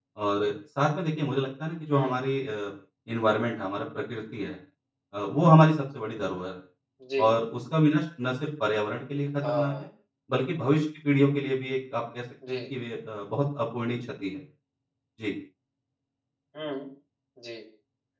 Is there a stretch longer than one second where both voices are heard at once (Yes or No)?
No